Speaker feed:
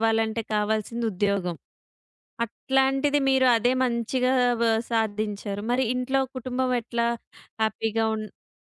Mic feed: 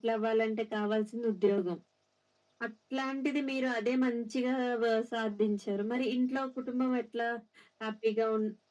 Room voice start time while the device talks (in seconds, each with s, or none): none